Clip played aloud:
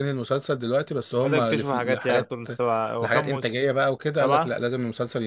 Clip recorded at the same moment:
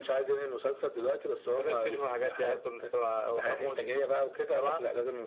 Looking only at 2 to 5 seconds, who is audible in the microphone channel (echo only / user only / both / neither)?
echo only